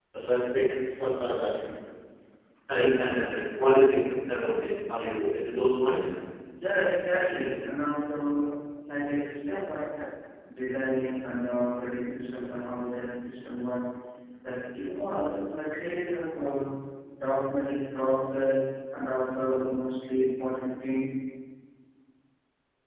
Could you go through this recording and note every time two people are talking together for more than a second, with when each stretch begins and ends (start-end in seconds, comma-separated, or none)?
none